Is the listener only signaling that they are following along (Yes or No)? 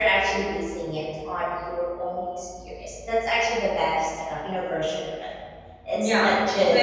No